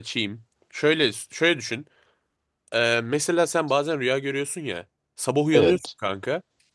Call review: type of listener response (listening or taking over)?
listening